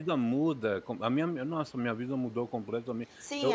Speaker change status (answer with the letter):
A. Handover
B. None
A